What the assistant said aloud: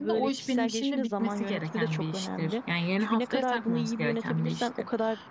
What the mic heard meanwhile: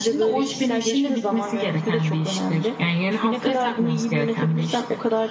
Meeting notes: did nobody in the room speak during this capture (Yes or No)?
Yes